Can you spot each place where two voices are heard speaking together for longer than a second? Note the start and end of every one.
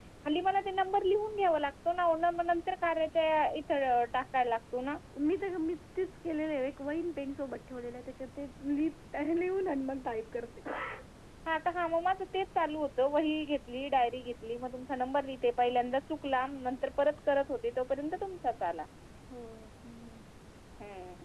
none

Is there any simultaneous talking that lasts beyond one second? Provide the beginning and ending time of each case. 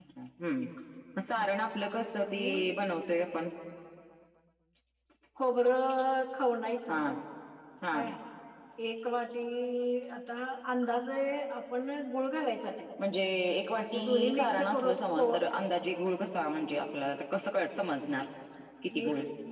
13.8-15.2

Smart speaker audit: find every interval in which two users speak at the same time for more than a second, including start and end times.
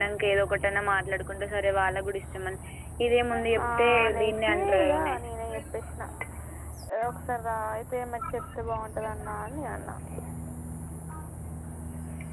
3.6-5.2

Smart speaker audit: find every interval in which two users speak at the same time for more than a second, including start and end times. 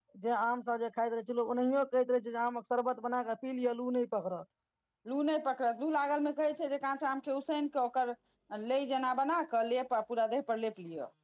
none

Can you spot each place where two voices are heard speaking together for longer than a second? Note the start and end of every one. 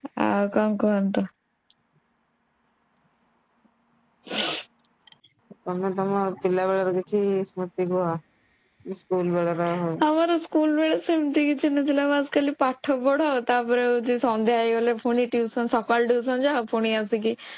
none

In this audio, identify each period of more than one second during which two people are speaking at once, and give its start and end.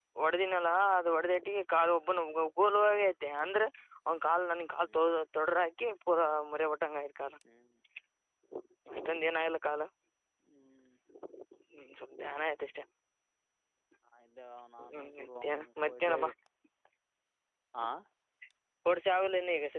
14.8-16.2

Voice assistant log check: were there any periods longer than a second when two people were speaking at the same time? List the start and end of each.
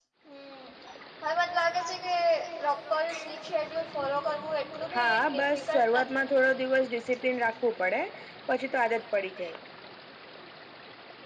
5.0-6.2

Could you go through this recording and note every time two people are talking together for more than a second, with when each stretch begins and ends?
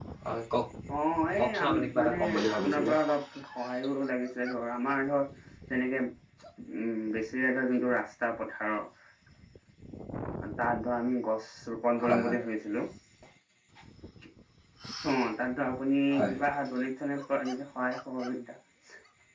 1.4-2.9

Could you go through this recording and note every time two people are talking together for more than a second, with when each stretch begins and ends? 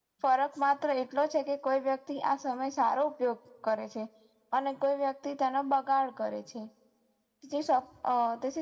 none

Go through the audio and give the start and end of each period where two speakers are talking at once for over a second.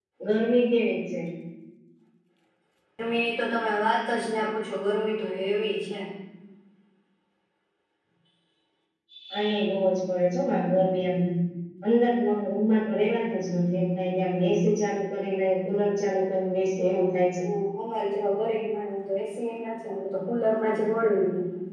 none

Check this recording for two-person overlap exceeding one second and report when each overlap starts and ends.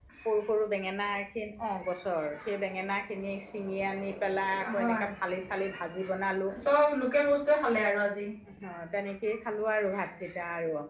none

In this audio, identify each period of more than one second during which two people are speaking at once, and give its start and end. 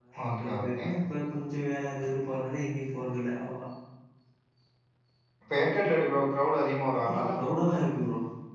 none

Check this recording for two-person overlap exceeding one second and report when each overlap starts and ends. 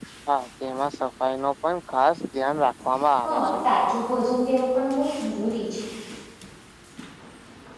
none

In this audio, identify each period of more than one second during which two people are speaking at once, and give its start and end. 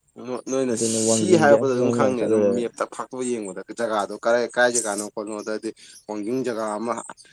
0.7-2.6

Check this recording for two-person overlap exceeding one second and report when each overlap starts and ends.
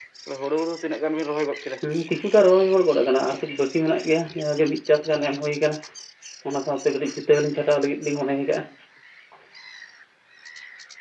none

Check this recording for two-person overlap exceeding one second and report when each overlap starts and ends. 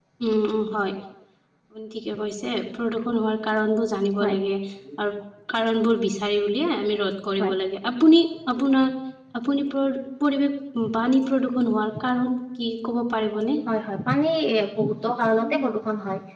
none

